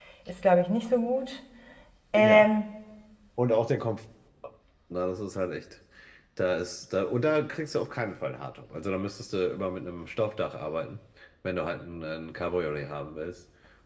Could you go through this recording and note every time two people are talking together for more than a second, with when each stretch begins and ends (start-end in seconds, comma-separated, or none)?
none